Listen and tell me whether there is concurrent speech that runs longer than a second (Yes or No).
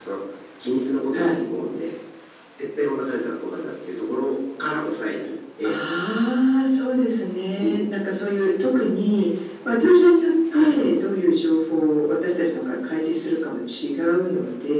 No